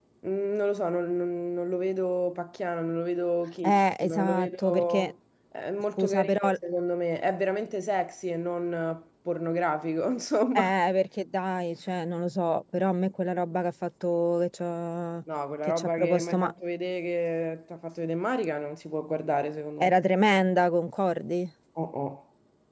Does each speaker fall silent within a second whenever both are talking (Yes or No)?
No